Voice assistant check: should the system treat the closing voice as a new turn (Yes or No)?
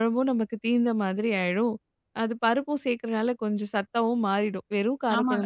Yes